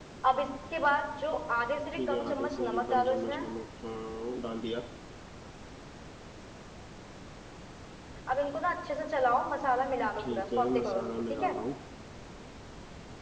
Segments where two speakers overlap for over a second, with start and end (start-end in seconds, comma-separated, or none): 1.9-3.4, 10.2-11.6